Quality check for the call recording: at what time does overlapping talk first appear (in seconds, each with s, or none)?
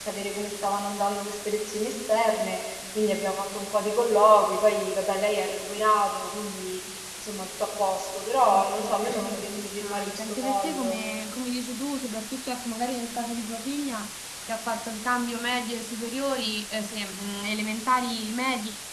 8.4 s